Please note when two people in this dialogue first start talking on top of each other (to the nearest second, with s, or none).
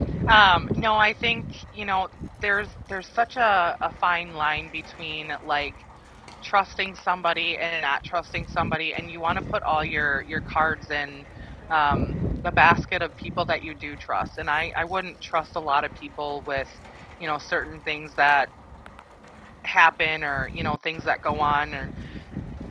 none